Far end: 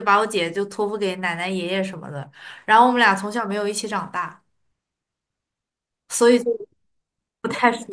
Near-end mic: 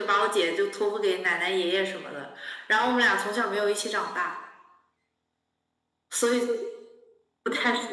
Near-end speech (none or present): none